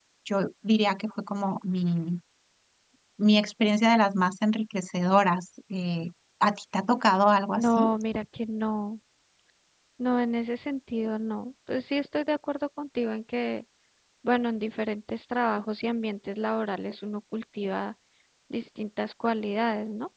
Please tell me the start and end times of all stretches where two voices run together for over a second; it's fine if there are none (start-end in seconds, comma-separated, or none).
none